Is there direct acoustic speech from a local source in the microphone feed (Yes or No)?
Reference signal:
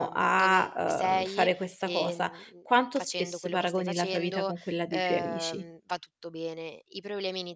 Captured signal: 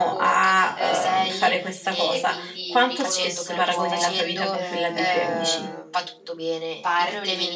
Yes